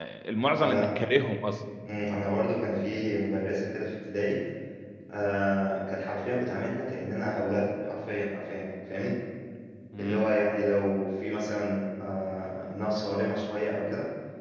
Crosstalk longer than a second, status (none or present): none